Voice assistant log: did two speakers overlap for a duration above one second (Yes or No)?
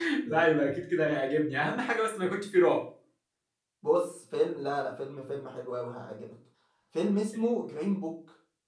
No